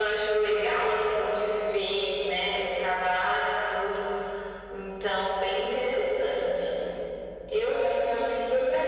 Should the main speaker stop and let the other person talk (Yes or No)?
Yes